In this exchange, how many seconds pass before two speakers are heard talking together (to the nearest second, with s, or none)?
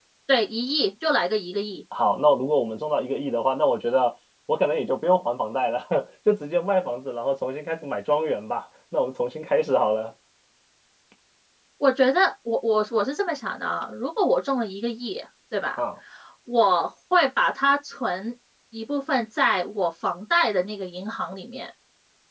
none